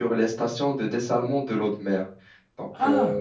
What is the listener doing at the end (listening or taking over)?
taking over